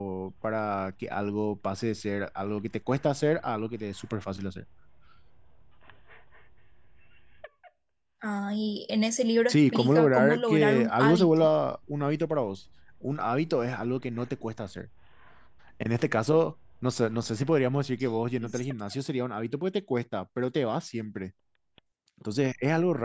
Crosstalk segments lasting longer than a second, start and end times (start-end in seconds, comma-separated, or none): 9.5-11.5